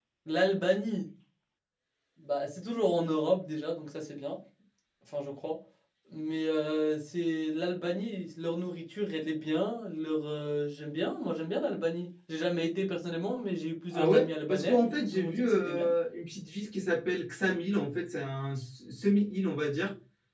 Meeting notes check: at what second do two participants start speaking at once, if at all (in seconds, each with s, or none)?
13.9 s